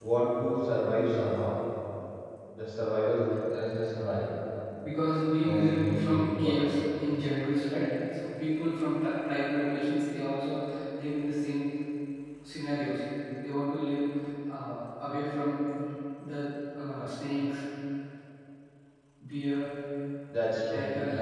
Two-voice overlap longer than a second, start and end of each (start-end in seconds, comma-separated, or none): 5.4-6.7